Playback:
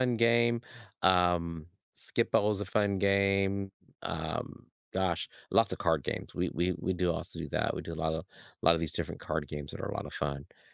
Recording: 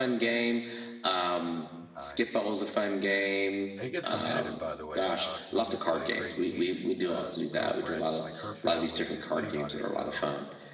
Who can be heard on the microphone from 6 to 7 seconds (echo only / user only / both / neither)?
both